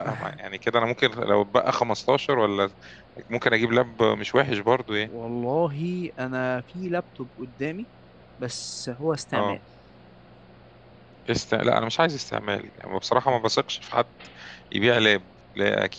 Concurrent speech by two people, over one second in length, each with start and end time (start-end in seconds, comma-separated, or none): none